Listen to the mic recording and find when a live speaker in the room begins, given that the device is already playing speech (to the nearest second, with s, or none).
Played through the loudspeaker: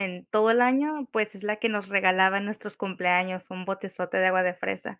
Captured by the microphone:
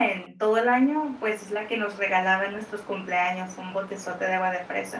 none